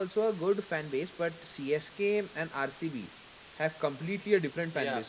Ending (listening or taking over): taking over